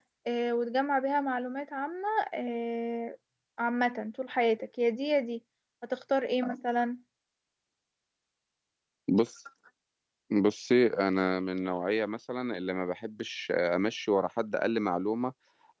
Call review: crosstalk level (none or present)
none